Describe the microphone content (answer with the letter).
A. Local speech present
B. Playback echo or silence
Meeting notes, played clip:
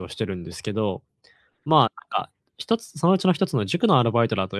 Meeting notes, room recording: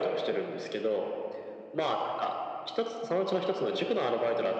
B